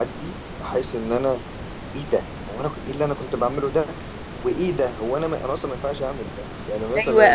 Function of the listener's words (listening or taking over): taking over